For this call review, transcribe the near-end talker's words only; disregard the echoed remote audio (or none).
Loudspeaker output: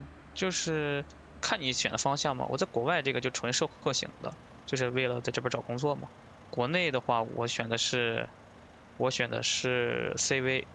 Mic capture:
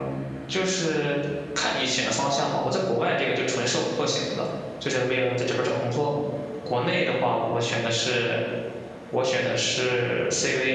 none